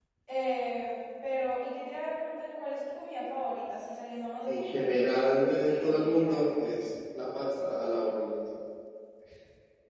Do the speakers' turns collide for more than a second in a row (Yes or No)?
Yes